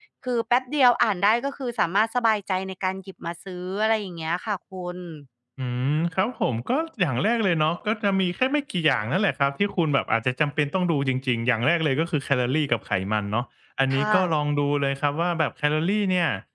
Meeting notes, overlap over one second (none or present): none